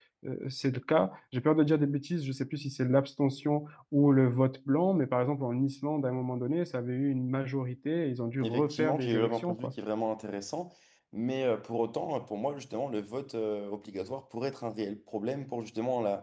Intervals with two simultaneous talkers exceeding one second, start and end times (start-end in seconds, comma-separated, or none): 8.4-9.7